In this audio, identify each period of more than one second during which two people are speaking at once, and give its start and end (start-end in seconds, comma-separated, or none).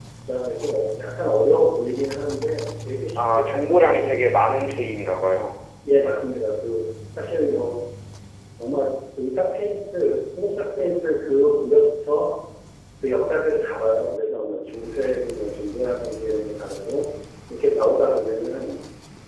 3.2-4.4